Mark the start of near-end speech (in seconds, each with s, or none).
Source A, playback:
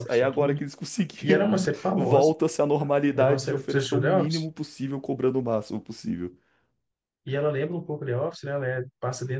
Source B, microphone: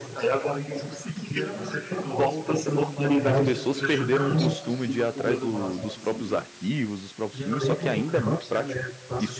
3.3 s